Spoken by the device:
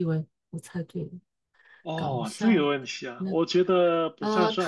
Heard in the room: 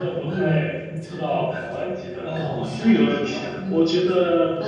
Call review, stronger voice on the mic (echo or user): echo